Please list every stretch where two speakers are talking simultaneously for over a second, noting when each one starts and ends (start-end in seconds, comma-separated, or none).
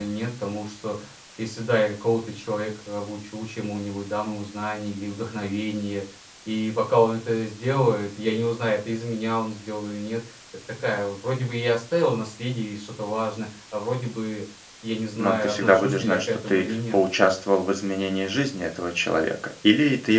15.2-17.0